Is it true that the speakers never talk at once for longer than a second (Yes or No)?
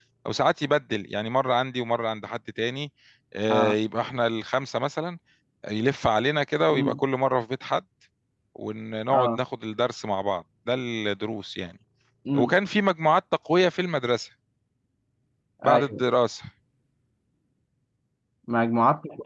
Yes